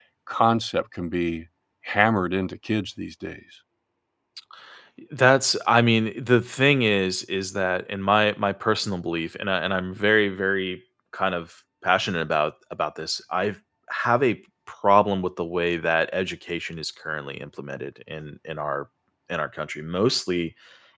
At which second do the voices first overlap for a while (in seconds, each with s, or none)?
none